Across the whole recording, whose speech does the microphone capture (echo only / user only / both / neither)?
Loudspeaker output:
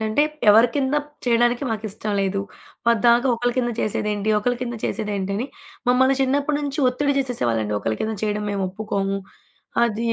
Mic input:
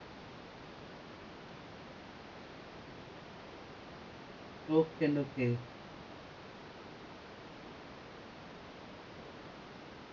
user only